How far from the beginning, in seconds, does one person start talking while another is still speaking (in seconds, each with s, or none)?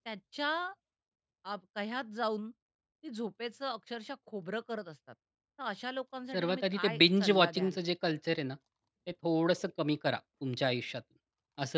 6.3 s